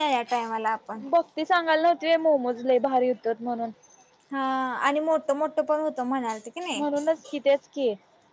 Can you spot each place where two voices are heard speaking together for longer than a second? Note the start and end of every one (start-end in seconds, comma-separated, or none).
none